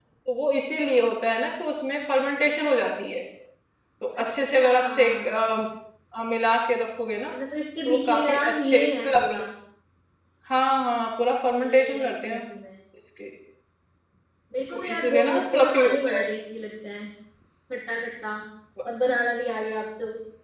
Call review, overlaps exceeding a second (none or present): present